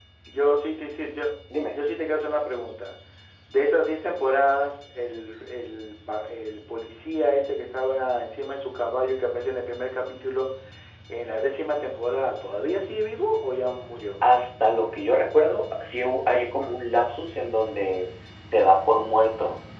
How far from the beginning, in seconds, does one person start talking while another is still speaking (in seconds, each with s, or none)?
none